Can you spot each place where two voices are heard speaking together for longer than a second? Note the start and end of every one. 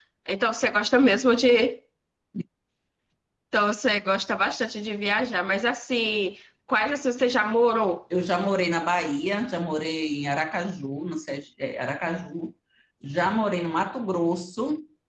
none

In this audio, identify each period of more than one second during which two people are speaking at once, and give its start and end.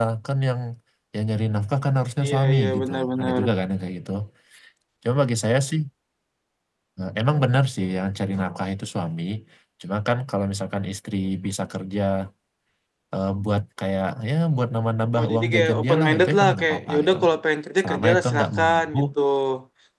2.2-3.4, 15.2-17.3, 17.8-19.0

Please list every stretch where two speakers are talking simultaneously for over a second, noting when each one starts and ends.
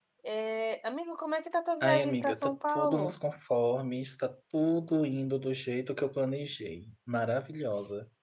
1.8-3.2

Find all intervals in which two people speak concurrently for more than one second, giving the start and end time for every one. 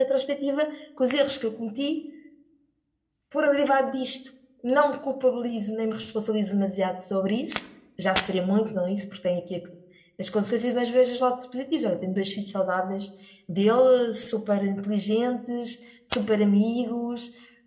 none

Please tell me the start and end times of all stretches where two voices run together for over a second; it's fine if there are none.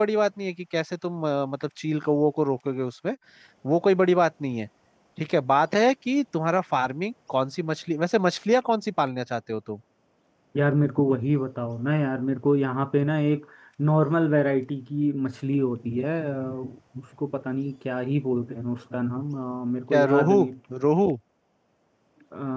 none

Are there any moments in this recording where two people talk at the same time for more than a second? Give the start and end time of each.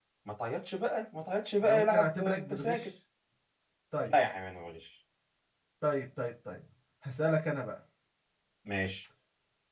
1.6-2.9

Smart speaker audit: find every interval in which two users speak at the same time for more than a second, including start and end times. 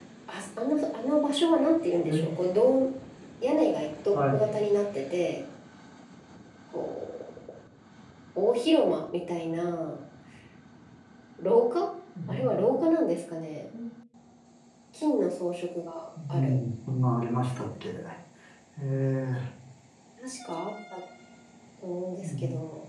none

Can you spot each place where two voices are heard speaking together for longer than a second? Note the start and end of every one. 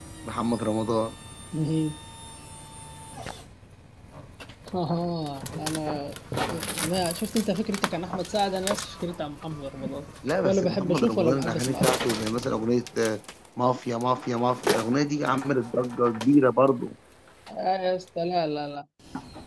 10.4-11.9

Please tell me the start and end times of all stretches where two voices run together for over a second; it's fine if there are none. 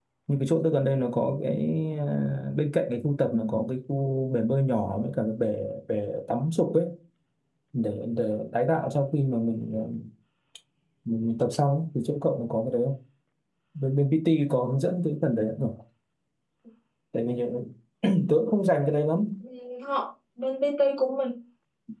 none

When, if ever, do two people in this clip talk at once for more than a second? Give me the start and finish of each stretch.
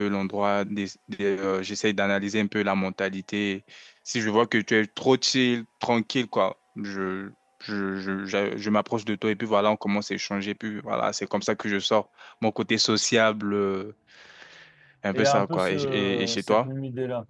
15.1-16.7

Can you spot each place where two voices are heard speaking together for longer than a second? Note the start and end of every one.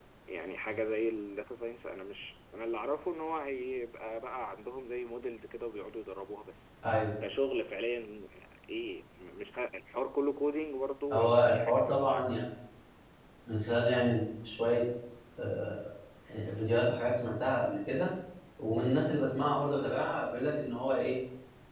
11.1-12.4

